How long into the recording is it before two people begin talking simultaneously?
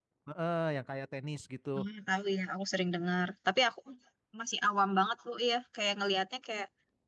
none

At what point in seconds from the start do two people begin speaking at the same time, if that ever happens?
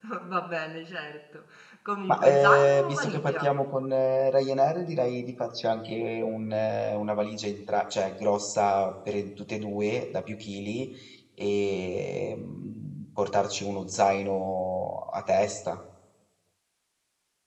2.1 s

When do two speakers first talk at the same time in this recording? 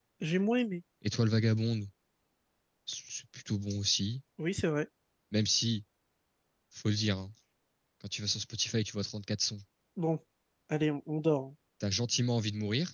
none

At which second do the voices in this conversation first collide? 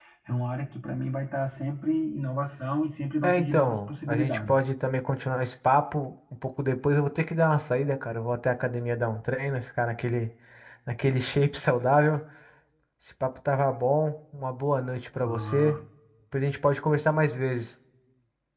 3.2 s

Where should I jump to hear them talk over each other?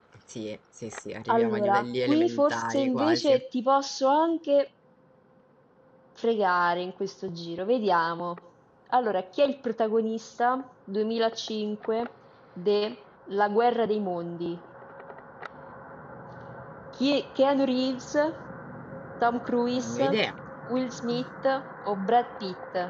1.3 s

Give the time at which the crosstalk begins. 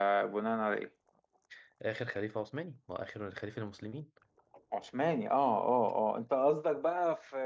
none

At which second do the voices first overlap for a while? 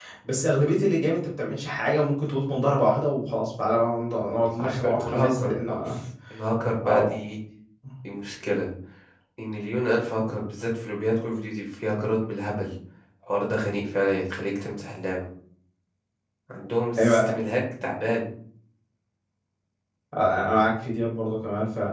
4.6 s

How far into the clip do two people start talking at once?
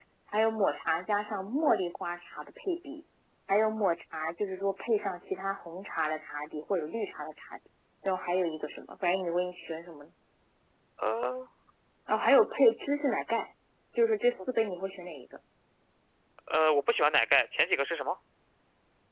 none

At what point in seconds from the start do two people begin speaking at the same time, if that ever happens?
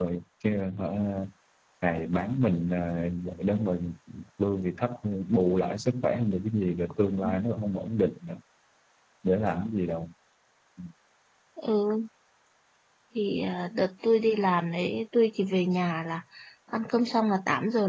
none

